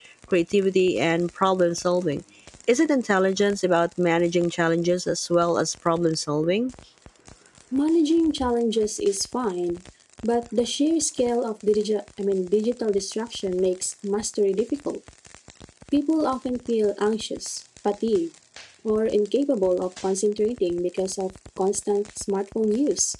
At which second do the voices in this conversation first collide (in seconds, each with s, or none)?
none